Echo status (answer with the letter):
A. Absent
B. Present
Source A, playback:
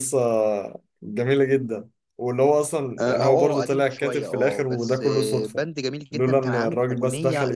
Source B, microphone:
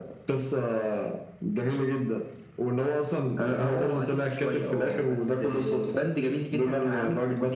B